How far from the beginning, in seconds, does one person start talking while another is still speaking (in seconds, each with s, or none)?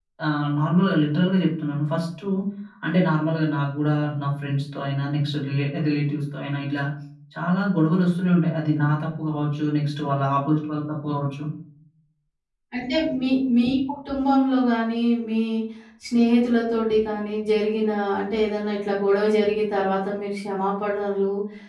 none